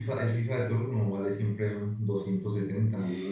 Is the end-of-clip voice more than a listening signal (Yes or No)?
Yes